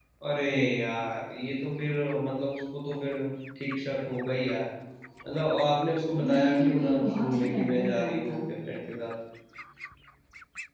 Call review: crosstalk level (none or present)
present